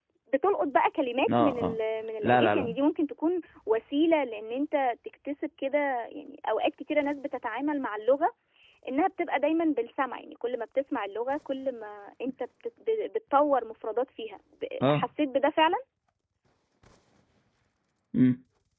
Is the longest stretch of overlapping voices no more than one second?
Yes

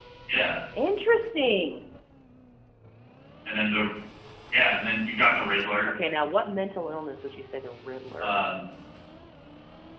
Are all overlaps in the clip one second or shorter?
Yes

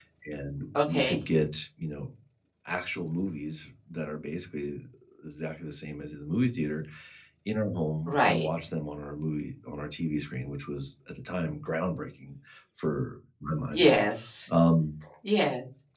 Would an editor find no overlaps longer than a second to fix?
Yes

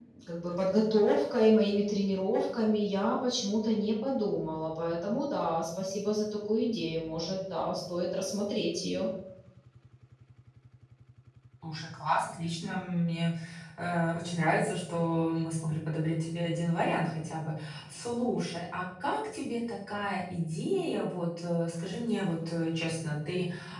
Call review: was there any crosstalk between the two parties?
No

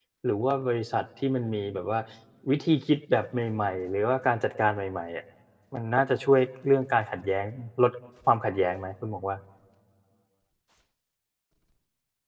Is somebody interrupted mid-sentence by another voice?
No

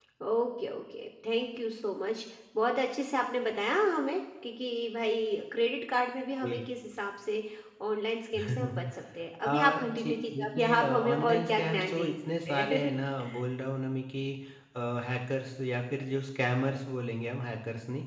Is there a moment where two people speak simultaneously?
Yes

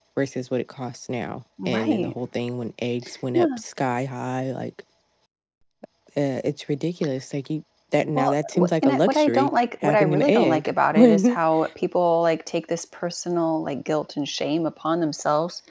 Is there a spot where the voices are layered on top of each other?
Yes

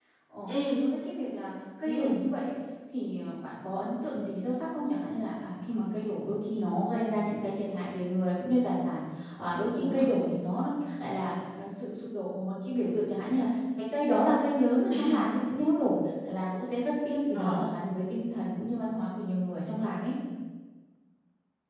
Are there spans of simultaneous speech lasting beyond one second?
No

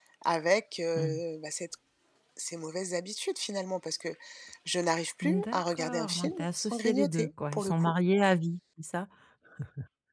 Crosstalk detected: Yes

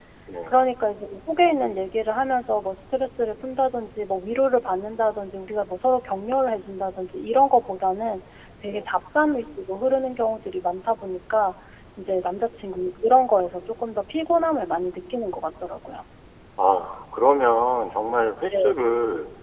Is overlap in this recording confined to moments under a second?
Yes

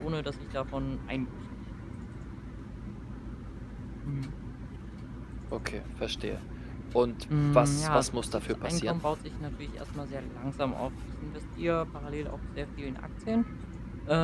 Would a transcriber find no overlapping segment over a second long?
No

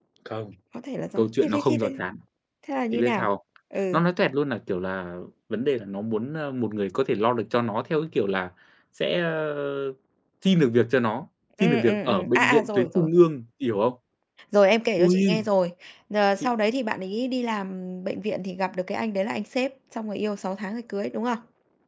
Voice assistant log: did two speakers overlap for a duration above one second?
Yes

